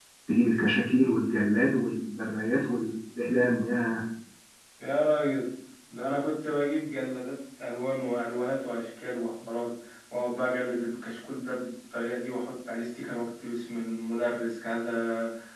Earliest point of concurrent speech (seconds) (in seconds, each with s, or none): none